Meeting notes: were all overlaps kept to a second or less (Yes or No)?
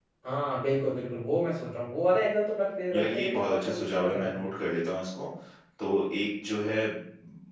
No